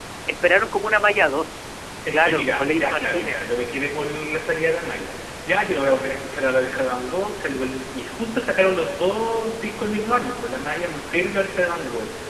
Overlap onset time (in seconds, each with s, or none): 2.0 s